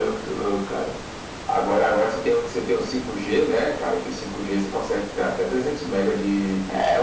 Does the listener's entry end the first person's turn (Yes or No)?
Yes